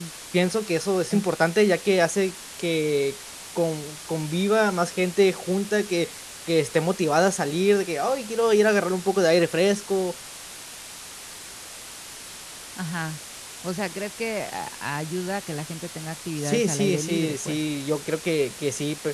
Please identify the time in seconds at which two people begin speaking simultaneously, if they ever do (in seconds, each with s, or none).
16.4 s